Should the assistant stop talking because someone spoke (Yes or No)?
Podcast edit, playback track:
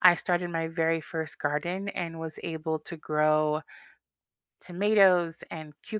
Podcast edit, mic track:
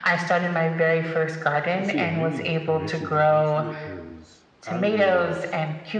Yes